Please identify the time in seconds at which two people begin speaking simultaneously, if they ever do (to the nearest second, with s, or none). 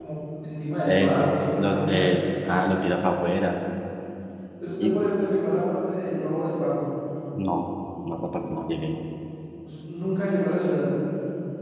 1 s